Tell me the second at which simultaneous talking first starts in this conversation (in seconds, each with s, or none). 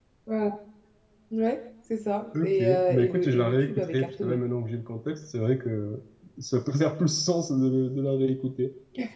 2.3 s